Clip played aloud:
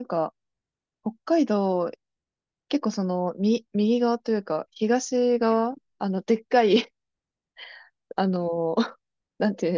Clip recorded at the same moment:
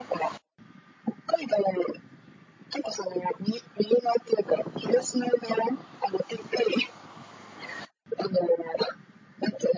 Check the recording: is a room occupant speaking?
No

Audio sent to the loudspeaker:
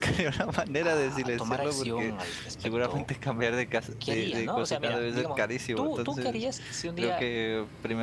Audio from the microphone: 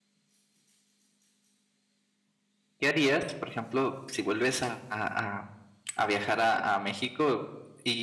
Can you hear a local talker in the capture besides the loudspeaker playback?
Yes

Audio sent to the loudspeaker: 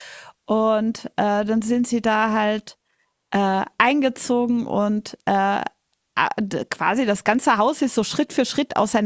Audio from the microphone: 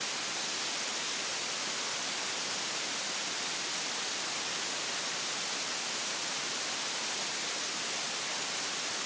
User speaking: No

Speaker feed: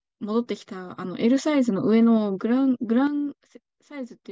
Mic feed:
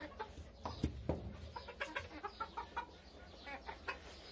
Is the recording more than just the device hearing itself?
No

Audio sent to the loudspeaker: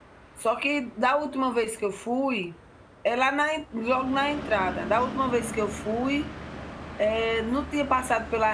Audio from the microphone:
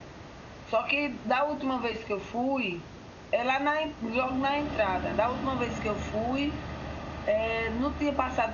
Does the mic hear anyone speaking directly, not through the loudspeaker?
No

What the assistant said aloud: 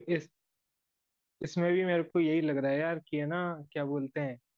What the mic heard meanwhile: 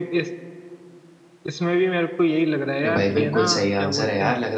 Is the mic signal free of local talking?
No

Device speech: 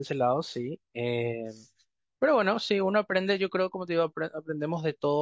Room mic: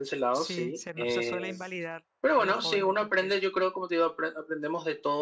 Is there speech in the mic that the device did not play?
Yes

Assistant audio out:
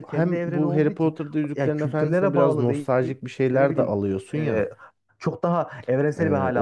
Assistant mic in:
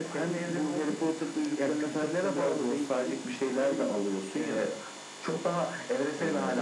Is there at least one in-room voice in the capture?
No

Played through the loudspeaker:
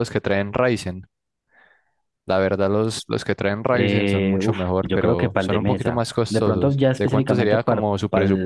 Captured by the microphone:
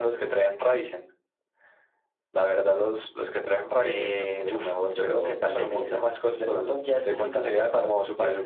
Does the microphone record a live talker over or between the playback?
No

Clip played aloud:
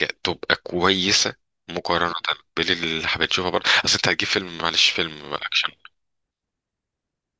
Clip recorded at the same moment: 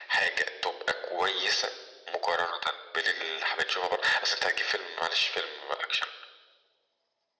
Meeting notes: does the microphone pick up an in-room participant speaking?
No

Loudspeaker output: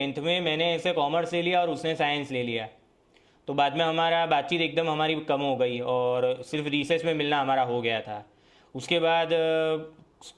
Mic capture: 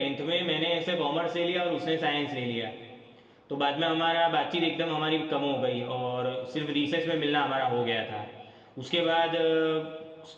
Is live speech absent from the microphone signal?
Yes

